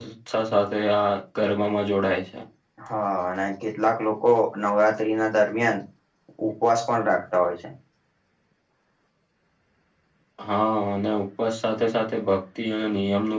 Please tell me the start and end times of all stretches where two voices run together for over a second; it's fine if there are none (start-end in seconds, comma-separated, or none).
none